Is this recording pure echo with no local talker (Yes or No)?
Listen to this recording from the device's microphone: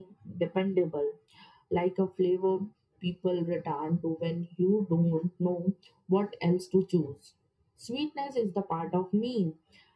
Yes